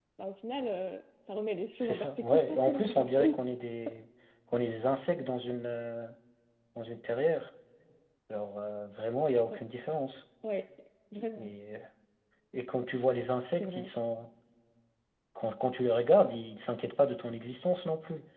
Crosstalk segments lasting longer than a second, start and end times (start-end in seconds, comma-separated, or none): 1.8-3.4